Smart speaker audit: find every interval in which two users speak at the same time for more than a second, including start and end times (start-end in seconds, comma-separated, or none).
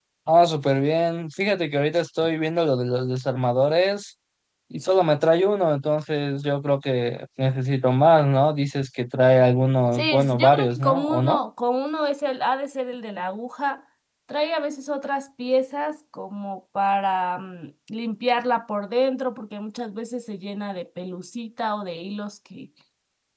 9.9-11.4